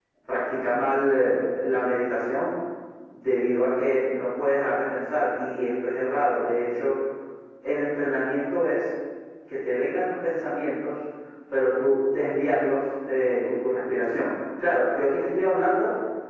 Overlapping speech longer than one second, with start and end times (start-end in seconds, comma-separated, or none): none